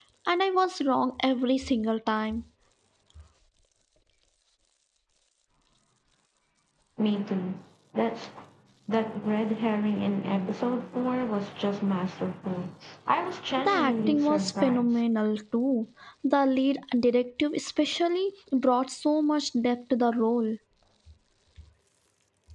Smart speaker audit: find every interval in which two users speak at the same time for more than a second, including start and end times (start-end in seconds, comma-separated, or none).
13.6-15.0